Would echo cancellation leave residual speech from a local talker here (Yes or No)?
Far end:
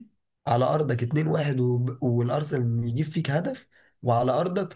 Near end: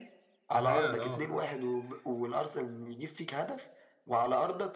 Yes